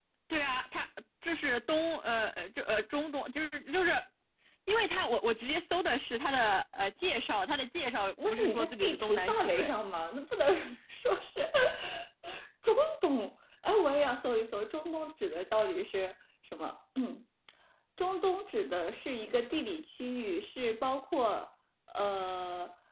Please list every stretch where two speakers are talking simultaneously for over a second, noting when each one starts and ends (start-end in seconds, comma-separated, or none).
8.3-9.7